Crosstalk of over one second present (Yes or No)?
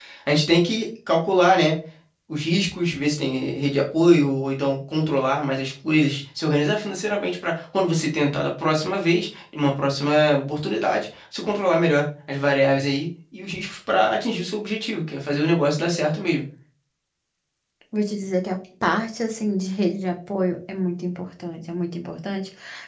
No